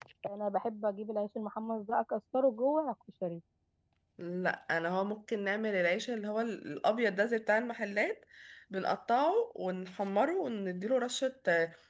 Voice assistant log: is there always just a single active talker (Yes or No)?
Yes